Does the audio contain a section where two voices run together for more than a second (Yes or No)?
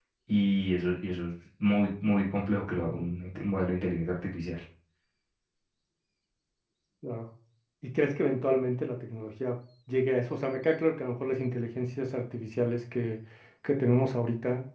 No